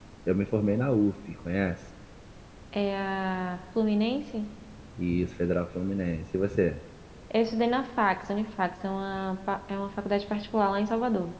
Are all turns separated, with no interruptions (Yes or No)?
Yes